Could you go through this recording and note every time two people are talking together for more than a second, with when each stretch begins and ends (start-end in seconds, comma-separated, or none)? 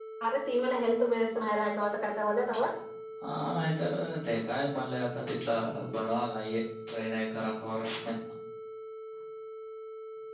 none